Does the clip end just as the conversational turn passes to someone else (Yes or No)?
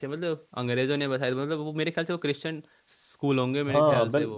Yes